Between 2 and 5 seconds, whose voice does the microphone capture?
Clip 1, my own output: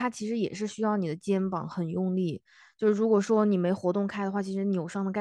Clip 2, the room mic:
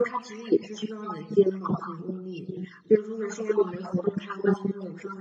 echo only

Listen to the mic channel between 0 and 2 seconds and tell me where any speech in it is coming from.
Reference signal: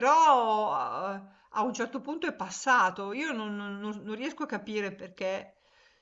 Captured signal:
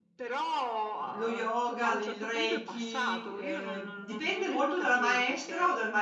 both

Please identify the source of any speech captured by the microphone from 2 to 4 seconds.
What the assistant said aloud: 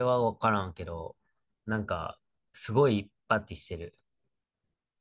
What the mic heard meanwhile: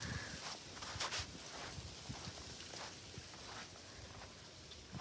neither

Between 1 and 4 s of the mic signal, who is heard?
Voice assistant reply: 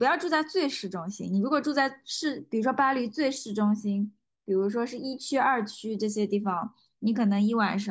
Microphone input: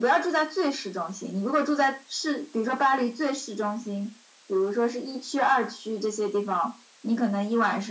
echo only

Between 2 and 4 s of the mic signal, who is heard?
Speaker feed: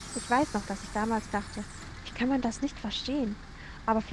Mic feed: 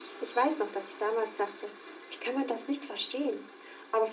echo only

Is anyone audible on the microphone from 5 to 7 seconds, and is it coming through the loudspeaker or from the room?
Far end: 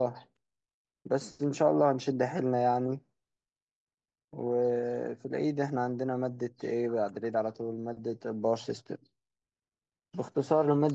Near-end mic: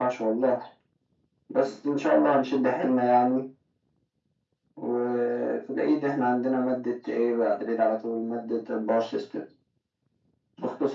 echo only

